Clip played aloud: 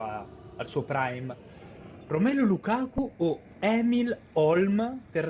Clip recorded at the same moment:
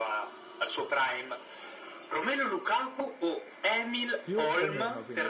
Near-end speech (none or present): present